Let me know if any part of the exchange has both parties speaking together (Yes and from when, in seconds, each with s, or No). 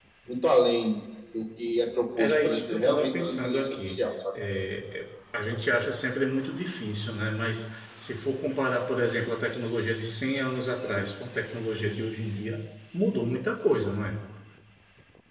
Yes, from 2.2 s